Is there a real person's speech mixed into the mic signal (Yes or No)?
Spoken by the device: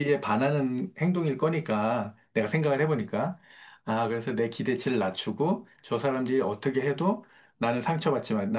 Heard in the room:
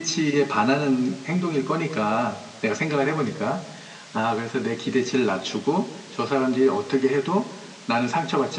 No